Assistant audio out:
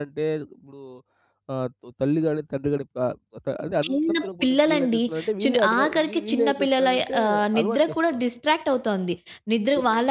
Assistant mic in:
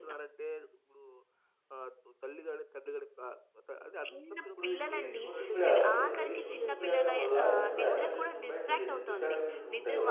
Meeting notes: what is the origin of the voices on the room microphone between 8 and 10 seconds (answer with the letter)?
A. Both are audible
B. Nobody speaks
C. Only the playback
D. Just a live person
A